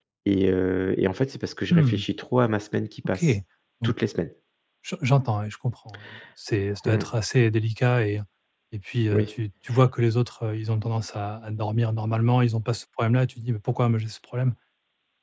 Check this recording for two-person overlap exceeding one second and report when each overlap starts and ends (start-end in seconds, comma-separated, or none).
none